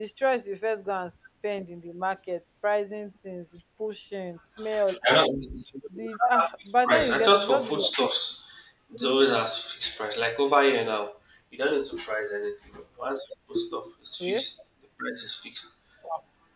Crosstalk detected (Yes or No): Yes